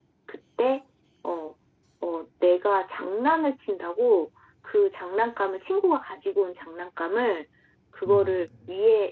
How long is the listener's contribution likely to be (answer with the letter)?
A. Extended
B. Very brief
B